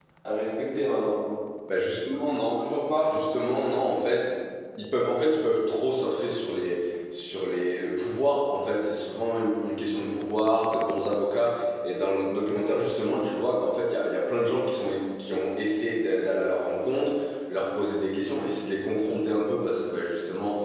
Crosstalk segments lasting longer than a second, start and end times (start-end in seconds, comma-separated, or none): none